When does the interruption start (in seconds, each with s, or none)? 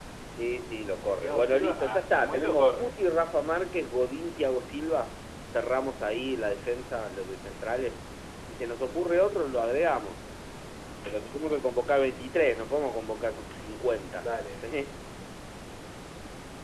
1.0 s